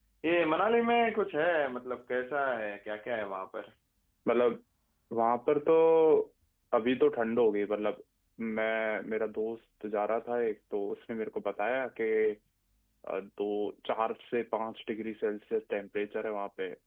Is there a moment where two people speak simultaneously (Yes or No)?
No